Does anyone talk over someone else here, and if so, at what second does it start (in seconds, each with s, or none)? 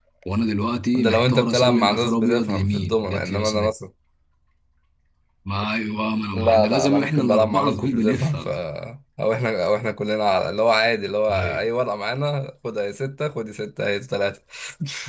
0.9 s